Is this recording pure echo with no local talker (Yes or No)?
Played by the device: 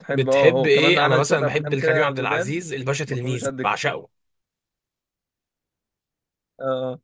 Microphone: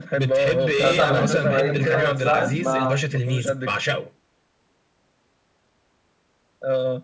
No